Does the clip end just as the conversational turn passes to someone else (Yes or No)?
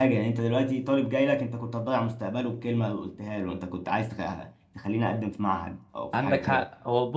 Yes